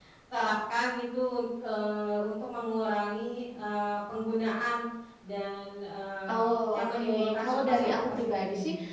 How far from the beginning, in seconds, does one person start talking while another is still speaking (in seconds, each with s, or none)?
6.3 s